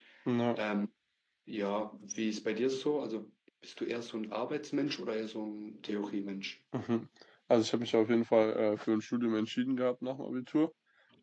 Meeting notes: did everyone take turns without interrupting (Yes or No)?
Yes